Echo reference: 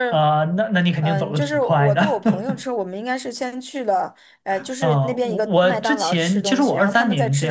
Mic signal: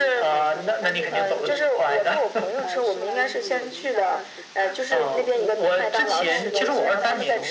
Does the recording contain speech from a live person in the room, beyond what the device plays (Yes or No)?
Yes